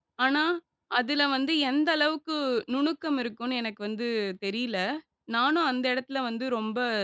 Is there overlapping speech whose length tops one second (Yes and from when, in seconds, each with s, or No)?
No